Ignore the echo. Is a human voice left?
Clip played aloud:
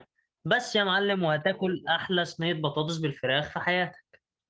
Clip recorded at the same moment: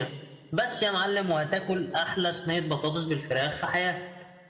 No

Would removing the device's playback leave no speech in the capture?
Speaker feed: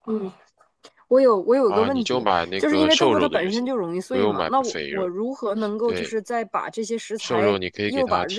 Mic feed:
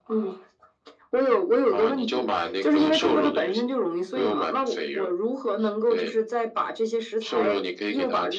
Yes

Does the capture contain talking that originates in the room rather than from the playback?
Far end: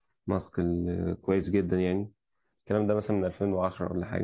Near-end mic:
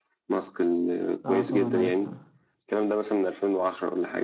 Yes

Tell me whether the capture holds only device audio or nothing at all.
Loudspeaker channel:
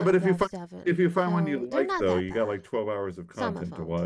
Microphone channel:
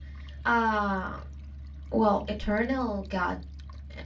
No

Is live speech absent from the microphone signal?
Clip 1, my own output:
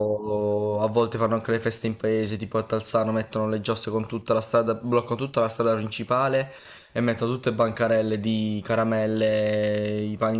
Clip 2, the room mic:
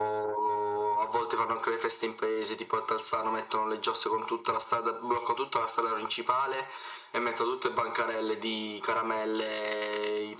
Yes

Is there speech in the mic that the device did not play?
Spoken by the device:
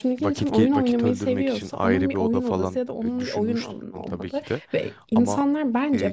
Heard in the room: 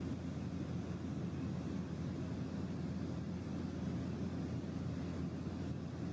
No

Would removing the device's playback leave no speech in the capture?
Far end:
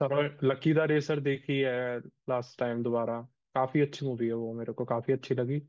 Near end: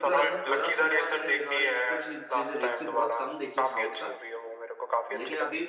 No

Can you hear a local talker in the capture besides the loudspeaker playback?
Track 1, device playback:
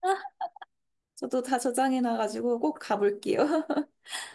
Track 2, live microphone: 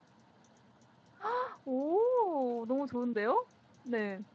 Yes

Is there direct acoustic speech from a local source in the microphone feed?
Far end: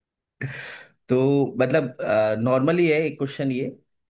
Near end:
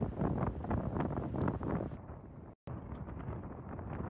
No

